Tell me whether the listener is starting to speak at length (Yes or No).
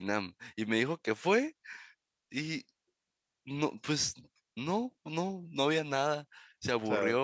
No